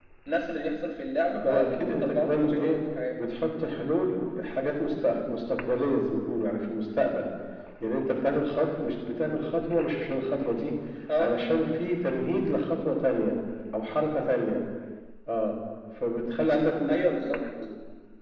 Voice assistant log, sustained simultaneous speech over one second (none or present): present